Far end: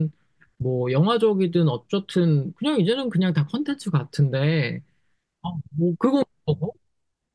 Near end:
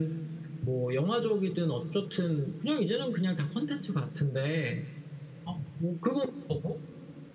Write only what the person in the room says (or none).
none